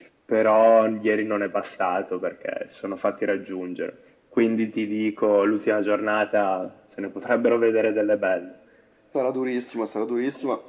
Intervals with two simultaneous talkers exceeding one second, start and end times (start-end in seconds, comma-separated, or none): none